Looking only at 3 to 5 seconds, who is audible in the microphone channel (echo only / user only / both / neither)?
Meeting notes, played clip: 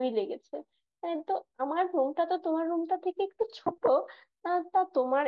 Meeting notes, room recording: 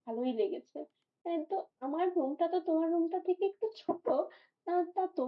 echo only